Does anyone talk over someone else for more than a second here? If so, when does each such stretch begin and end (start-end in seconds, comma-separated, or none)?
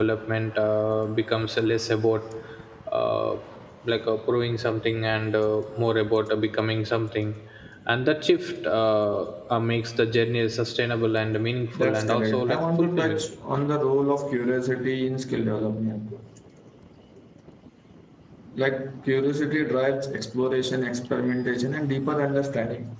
11.8-13.2